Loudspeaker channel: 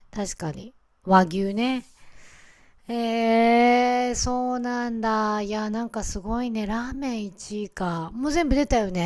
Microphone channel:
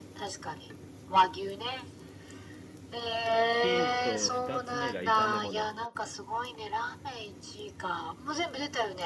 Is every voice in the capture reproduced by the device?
No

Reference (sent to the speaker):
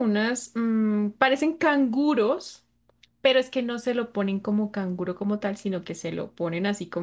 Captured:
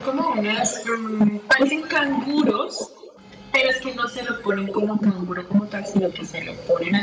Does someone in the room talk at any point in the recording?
No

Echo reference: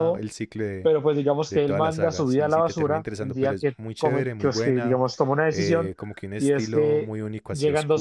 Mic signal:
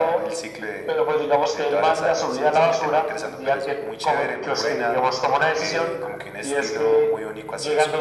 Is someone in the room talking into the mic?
No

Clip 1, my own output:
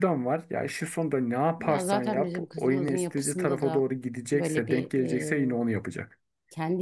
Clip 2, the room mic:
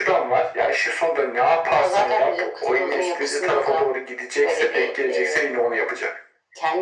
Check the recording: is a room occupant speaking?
No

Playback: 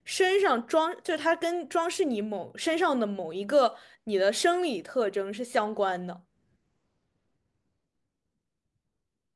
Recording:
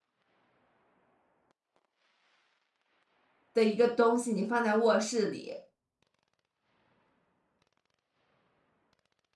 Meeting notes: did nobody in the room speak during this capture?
No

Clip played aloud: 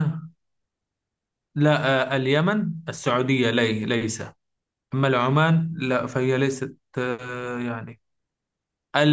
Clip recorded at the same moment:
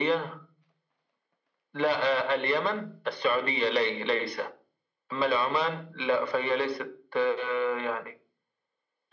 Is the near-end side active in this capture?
No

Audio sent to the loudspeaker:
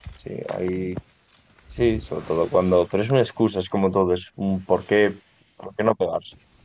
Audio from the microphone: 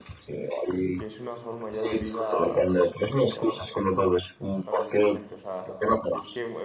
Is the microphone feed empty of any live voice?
No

